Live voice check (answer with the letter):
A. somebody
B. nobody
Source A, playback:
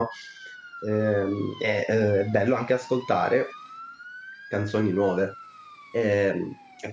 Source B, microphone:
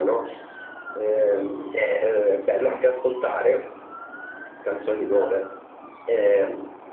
B